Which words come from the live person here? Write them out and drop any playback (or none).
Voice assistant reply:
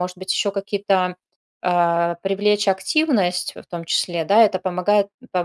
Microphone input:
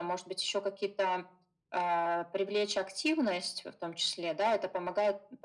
none